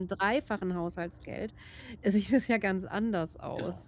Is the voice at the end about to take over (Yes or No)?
Yes